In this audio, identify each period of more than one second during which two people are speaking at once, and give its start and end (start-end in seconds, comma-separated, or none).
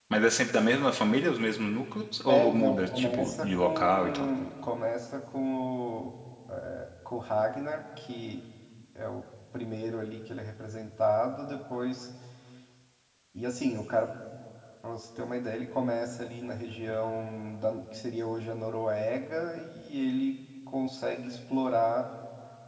2.3-4.3